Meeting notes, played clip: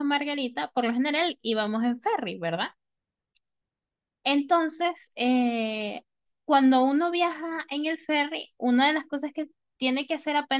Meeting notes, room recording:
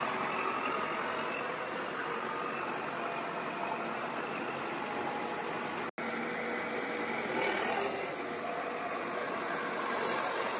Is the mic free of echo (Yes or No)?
Yes